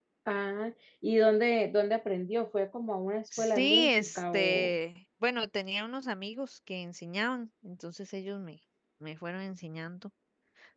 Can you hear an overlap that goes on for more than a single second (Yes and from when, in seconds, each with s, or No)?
Yes, from 3.3 s